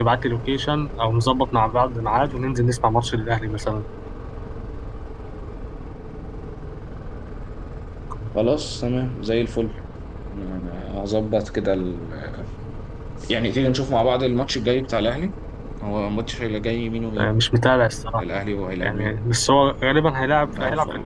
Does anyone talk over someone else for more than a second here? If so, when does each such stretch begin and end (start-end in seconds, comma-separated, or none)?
none